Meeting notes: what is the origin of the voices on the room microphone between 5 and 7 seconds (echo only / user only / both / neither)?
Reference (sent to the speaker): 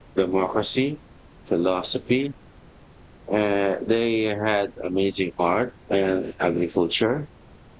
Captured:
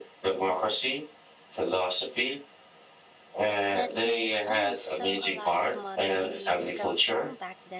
both